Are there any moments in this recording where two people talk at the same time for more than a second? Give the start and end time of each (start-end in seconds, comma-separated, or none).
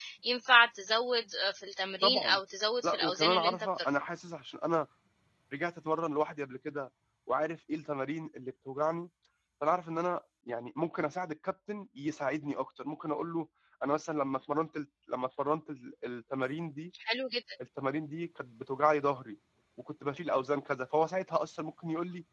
2.8-4.1